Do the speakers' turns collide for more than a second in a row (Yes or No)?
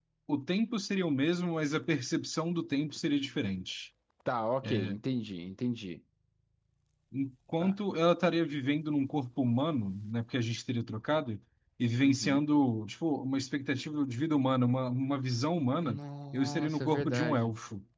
Yes